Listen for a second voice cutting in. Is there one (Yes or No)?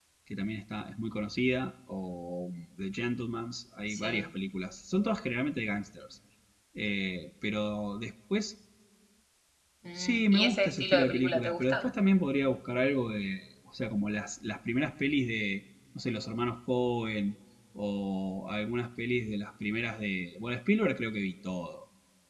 Yes